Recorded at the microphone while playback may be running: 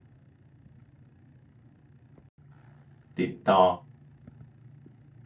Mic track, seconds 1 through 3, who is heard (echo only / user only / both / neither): neither